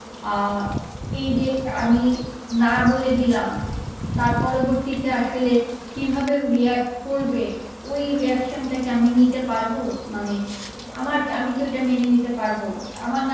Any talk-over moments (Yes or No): No